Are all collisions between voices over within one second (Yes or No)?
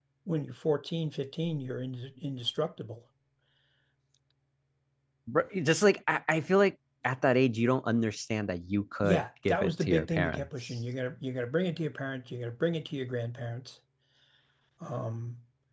No